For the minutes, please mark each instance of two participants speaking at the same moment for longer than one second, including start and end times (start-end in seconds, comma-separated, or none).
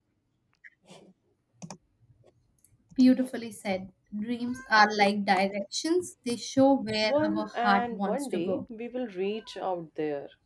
7.0-8.6